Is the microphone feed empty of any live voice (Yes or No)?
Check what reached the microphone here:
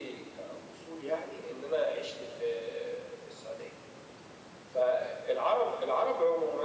Yes